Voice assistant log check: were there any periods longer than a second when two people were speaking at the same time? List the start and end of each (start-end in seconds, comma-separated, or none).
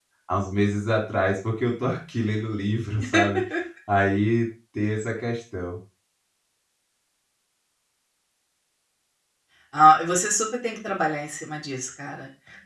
none